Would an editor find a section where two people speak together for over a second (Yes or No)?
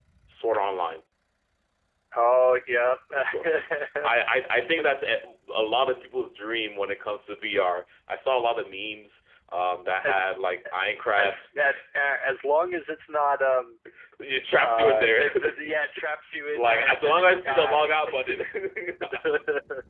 Yes